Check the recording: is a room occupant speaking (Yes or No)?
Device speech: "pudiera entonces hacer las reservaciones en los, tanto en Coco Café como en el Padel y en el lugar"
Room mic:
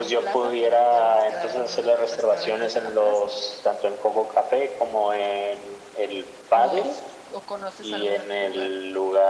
Yes